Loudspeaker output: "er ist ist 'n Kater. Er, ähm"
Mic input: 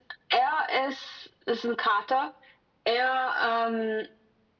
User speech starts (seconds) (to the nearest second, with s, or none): none